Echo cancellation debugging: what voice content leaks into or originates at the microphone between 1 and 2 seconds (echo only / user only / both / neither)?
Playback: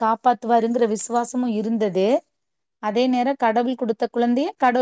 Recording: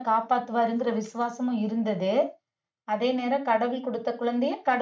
echo only